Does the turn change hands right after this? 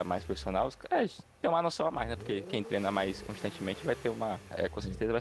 No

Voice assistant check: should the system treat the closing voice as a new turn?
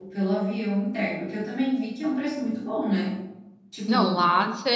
Yes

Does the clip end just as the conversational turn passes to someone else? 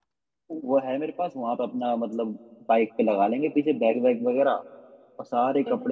No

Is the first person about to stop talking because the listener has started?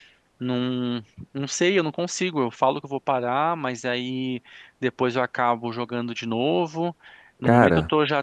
No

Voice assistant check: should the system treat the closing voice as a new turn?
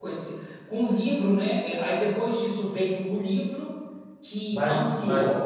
Yes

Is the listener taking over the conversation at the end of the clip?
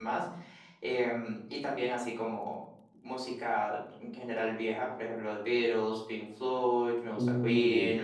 No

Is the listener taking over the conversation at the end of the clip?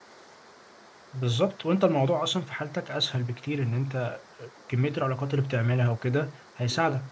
Yes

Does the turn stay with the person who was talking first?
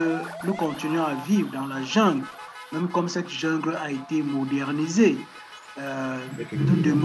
Yes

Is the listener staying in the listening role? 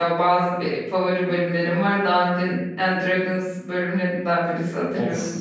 No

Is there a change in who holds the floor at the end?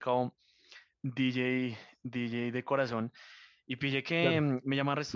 No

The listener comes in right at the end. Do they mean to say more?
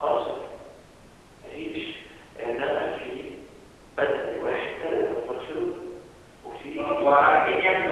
Yes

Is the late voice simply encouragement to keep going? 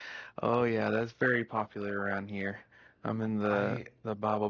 Yes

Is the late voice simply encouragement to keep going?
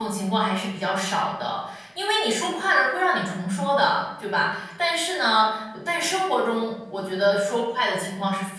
Yes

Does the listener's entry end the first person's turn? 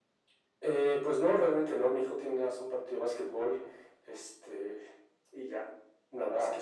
No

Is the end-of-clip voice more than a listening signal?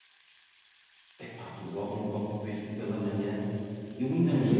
No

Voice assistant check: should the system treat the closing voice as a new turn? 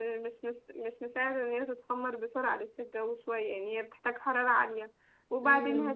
No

